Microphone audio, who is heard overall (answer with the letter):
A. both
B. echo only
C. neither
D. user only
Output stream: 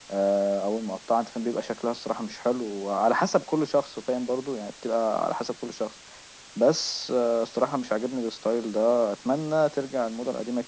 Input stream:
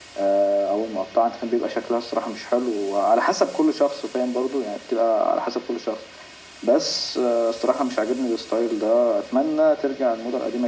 B